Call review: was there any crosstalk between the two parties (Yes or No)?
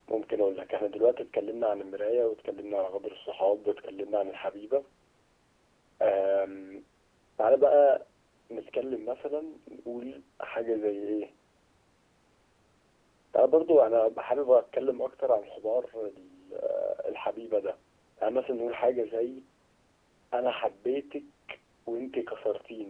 No